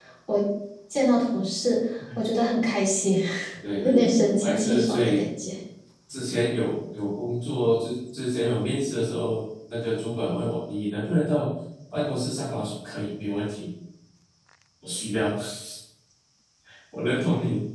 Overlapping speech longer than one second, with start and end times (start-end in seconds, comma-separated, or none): 3.8-5.2